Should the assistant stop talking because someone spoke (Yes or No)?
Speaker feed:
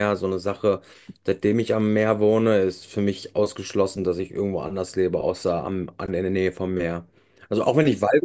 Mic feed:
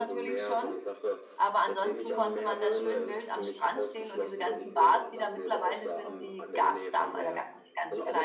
Yes